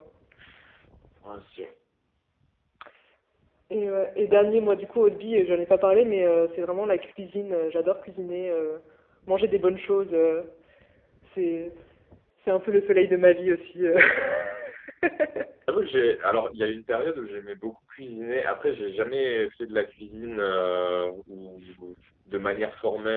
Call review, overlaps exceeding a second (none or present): none